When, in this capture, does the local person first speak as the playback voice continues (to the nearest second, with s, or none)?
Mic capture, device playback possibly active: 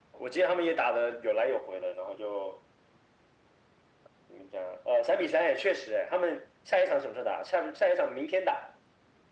none